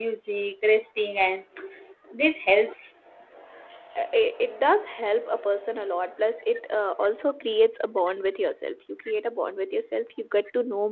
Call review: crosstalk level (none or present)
none